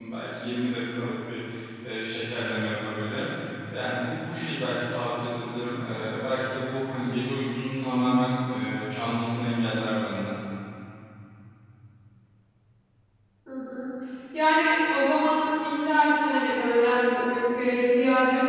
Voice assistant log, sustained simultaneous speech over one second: none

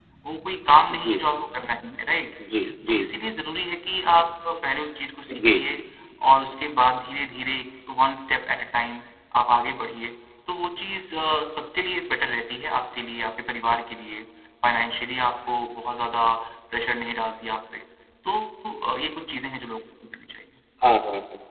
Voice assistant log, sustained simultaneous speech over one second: none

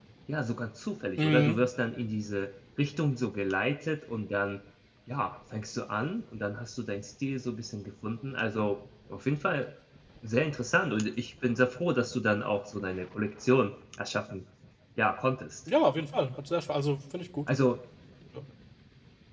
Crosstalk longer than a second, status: none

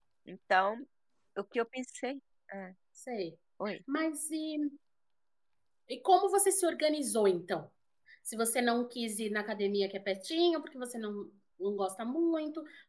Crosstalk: none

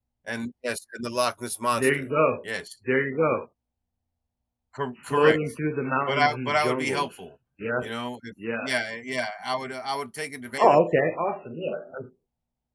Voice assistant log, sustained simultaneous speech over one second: present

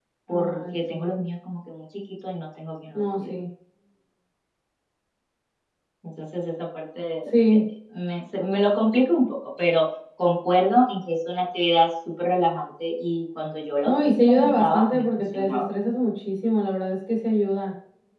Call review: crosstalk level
present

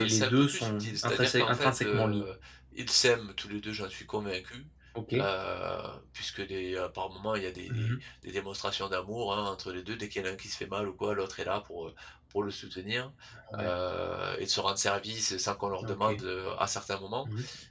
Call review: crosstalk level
present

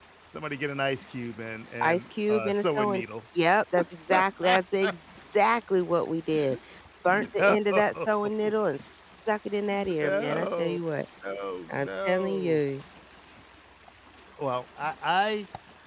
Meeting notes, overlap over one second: present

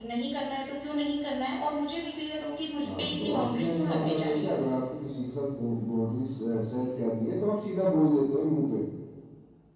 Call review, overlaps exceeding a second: present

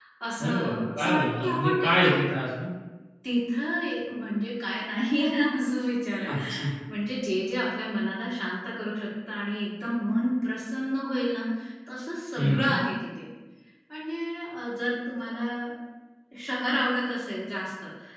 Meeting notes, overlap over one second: present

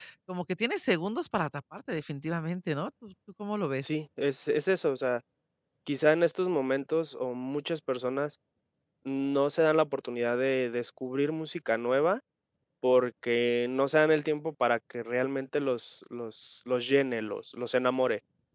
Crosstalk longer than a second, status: none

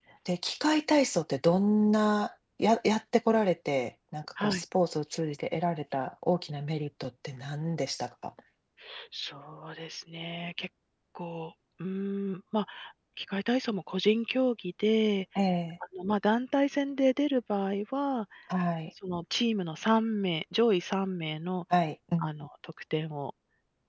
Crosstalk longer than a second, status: none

